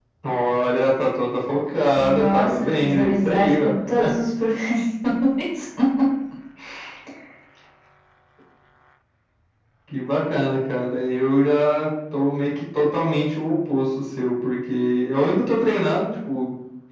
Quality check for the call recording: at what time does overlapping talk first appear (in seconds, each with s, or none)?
2.0 s